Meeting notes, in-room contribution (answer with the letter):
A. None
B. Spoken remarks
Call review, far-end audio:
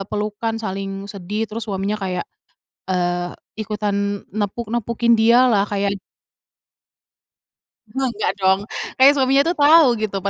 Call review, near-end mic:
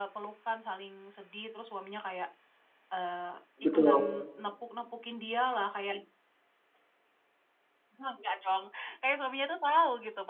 B